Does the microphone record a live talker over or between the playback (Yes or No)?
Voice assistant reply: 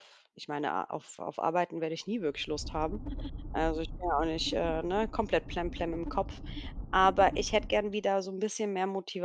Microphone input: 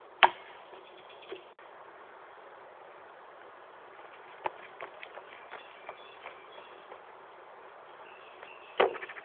No